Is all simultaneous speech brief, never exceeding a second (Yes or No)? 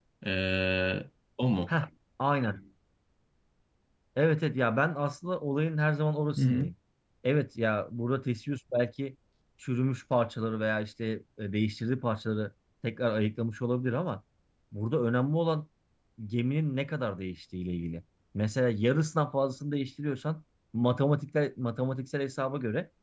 Yes